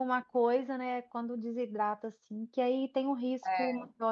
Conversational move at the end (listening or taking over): listening